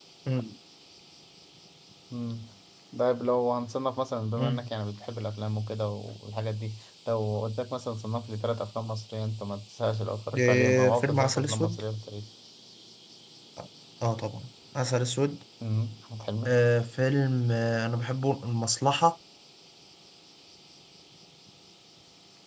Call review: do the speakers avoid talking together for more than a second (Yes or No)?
No